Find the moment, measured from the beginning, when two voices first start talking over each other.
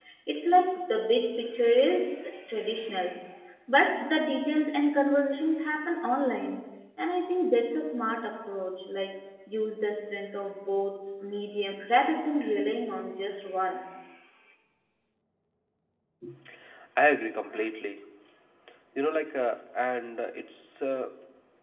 none

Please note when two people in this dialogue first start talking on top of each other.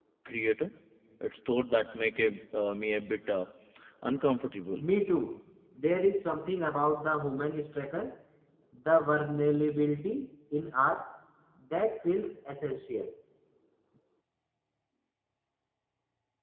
none

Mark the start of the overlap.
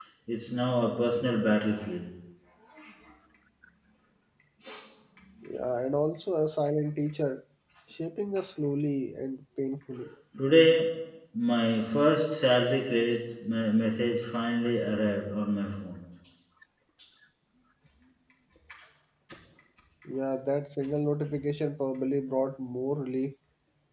none

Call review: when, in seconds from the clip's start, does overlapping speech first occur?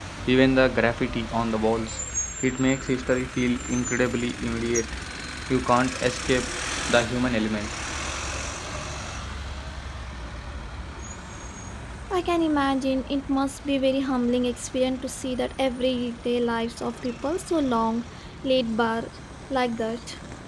none

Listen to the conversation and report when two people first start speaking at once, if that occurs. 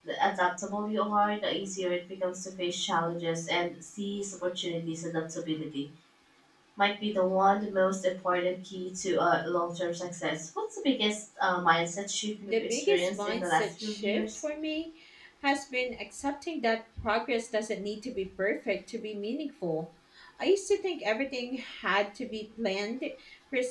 12.4 s

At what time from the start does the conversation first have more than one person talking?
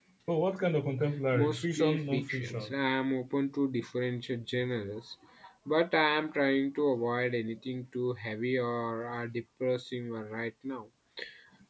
1.3 s

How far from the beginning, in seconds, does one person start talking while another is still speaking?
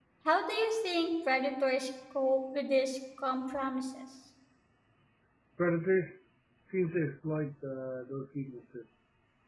none

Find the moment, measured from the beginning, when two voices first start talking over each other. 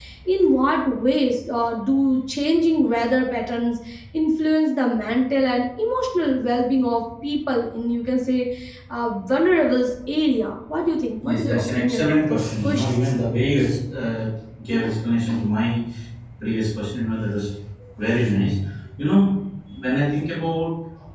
11.2 s

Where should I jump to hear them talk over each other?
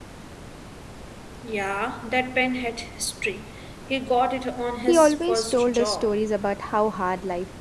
4.9 s

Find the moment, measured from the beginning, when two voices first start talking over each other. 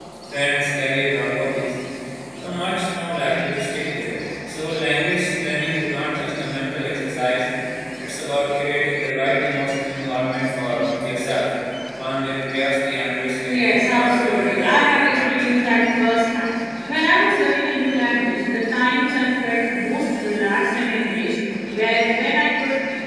13.5 s

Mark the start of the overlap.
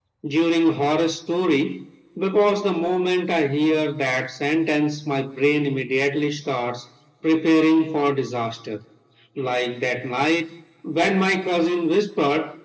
none

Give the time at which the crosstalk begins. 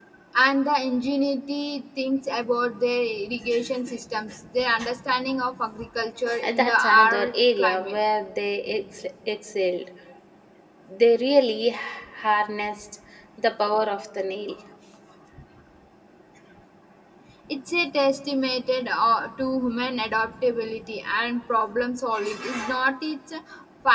6.4 s

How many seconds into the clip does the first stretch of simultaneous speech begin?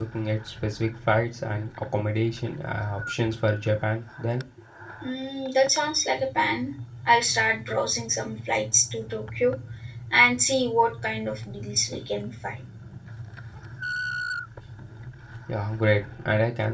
none

